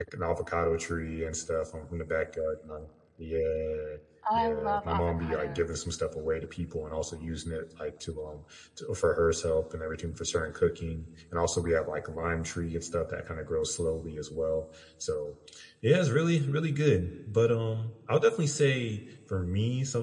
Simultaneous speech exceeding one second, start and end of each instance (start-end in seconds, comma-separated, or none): 4.3-5.8